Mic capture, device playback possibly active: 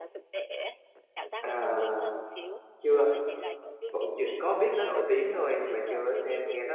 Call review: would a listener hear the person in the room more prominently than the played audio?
Yes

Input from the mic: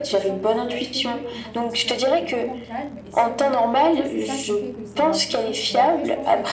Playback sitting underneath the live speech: No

